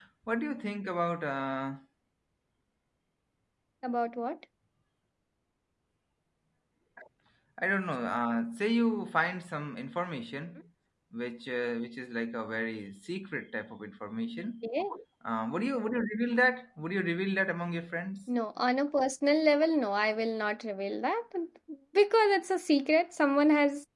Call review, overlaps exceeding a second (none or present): none